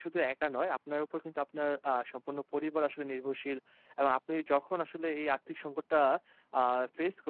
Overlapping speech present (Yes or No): No